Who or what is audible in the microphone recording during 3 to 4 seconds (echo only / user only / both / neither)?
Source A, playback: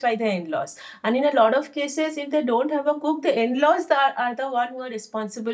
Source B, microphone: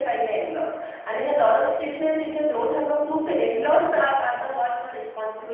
echo only